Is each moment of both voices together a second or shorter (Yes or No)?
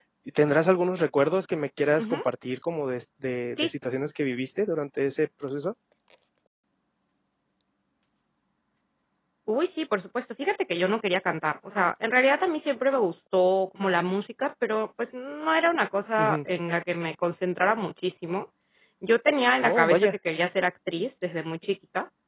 Yes